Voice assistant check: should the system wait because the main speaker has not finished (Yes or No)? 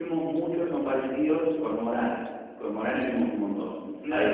No